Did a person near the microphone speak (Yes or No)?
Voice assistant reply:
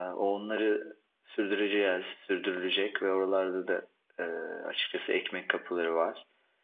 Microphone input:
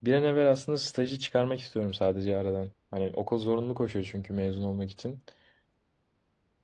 Yes